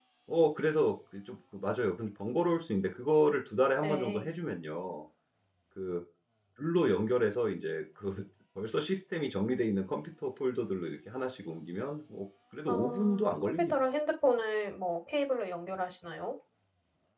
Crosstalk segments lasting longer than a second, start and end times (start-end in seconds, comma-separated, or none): 12.7-13.9